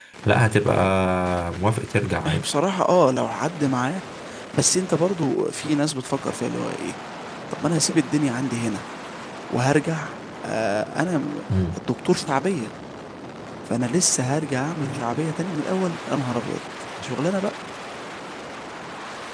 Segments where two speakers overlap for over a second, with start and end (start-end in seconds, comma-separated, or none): none